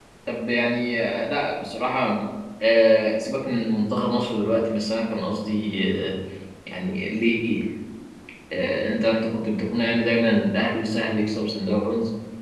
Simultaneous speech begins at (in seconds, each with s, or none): none